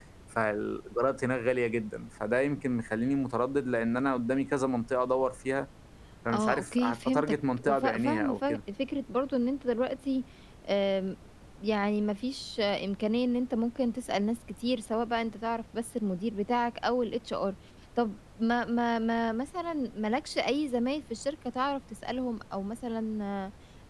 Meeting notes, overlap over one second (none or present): present